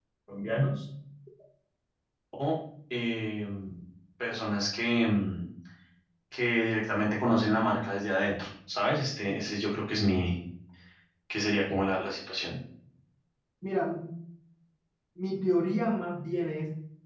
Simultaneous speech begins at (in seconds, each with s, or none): none